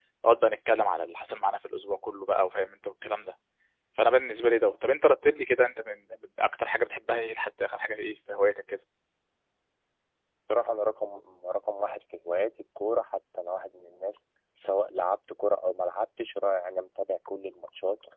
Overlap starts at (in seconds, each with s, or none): none